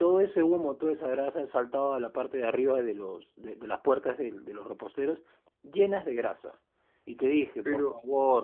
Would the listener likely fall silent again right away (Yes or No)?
Yes